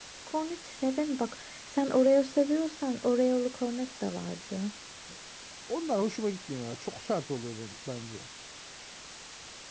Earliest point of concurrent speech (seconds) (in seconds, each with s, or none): none